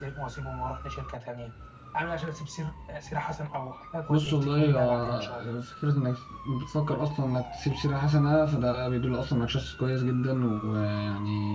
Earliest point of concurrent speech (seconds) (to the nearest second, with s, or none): 4 s